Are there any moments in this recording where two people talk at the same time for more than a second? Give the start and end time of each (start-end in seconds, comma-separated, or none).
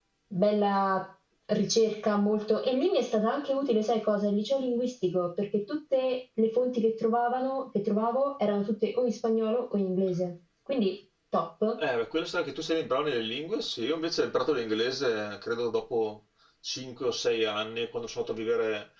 none